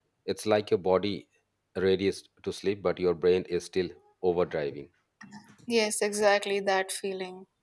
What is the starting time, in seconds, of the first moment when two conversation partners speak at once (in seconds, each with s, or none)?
none